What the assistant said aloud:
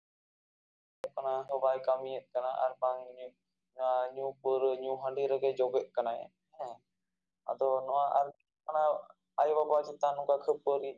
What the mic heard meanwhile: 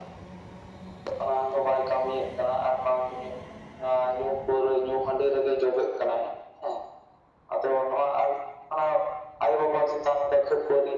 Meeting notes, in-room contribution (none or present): none